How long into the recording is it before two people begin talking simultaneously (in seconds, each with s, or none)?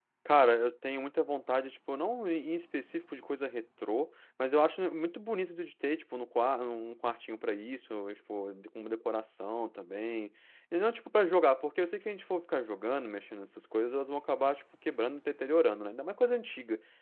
none